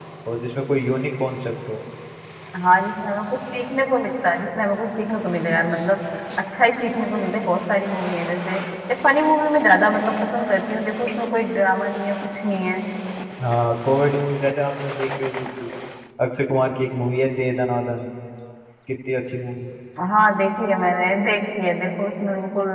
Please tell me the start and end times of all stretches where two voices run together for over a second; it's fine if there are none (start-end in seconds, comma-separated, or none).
none